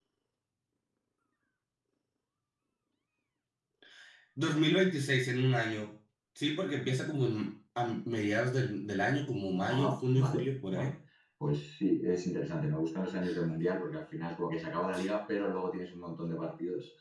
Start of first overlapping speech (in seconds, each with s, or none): 9.7 s